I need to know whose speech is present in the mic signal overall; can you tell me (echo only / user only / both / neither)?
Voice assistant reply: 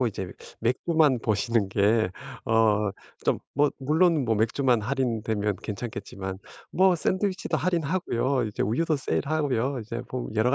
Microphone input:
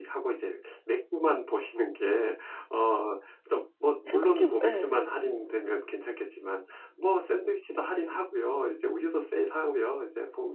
both